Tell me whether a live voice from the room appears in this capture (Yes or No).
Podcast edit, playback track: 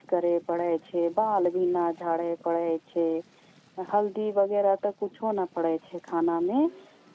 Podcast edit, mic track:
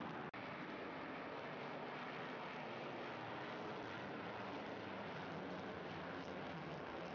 No